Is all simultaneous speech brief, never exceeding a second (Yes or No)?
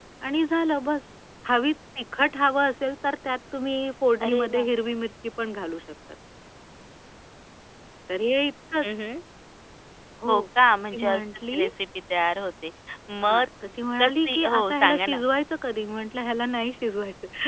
No